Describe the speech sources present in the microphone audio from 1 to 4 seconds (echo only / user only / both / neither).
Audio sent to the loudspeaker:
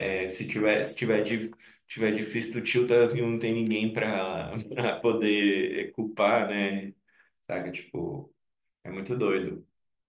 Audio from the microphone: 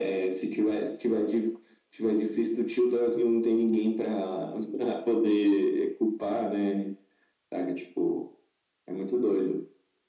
echo only